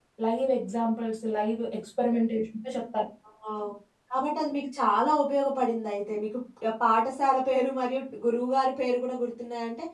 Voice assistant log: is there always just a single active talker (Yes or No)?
Yes